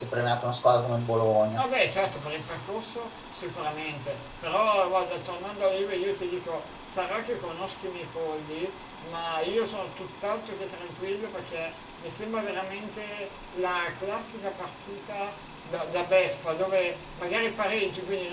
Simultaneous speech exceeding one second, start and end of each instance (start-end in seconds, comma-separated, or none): none